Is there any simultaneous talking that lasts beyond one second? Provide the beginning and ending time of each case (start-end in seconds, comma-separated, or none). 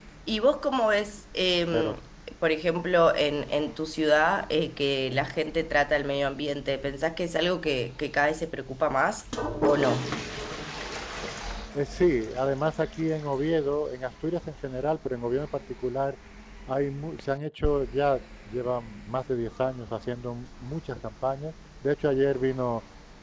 none